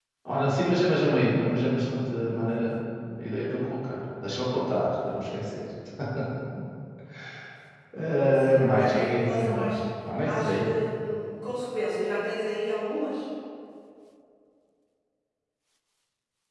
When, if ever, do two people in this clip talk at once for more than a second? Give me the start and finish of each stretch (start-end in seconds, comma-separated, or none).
8.2-9.8